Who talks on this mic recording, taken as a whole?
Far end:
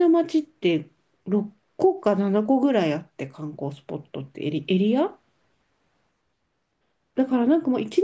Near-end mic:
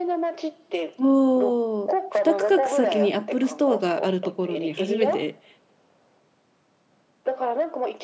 both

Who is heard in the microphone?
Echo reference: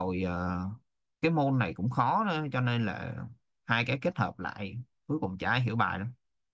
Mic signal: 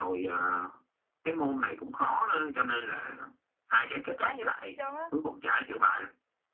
both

